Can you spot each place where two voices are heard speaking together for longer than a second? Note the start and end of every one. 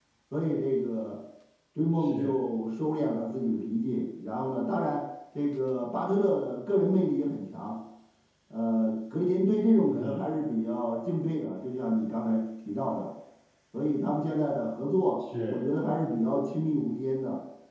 none

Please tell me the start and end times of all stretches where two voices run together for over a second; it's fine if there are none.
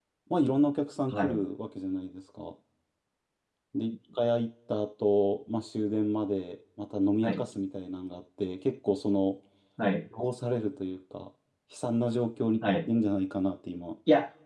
none

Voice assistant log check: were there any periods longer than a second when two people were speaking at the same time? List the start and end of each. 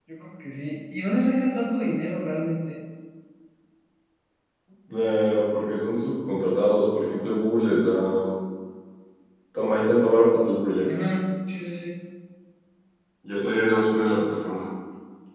none

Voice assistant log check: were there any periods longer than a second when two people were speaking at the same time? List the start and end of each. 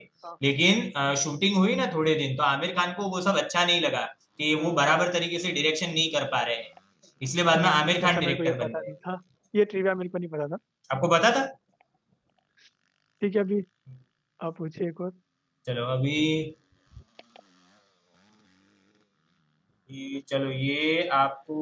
7.5-8.9

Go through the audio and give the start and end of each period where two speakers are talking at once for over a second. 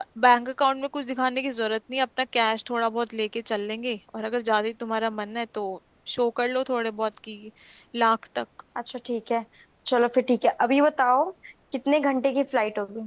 none

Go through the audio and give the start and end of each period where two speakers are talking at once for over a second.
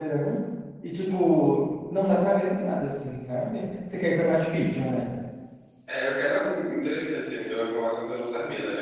none

